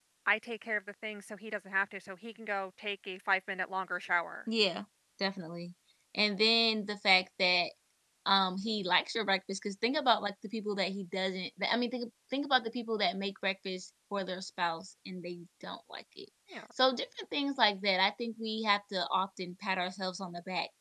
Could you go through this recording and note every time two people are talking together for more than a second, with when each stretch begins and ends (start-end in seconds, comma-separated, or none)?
none